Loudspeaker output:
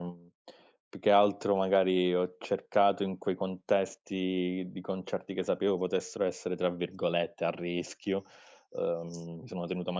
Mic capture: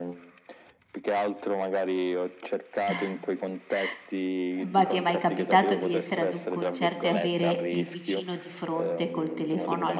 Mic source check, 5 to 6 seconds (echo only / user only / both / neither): both